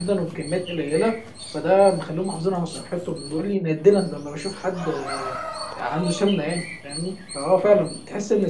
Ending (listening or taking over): listening